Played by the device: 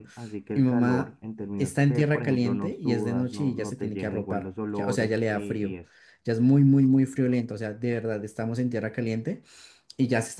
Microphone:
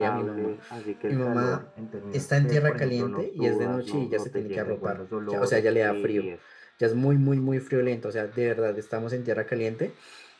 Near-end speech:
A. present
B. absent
B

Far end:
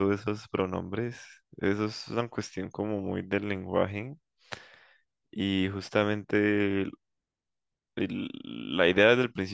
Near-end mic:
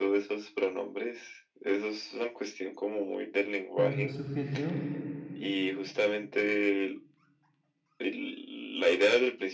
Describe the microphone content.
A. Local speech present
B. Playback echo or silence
A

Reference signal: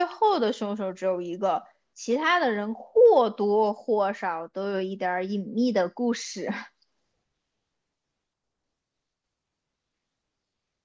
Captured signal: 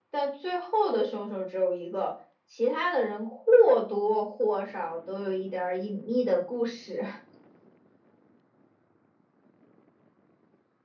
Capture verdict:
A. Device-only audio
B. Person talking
A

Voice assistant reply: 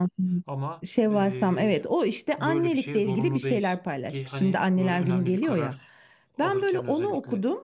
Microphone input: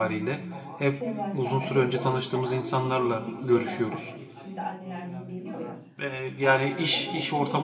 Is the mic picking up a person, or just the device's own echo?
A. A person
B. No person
A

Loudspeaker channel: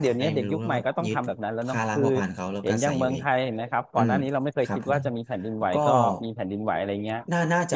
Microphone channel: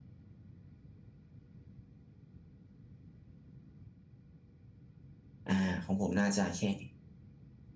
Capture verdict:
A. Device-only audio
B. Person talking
B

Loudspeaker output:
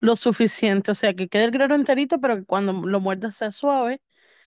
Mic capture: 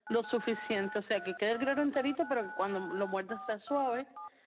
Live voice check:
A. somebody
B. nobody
B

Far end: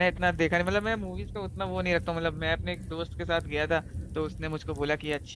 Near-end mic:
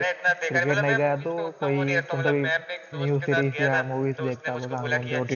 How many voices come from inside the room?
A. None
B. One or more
B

